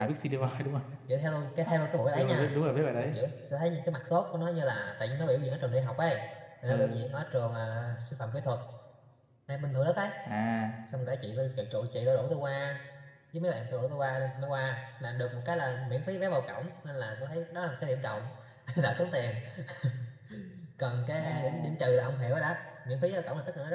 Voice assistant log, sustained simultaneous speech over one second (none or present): none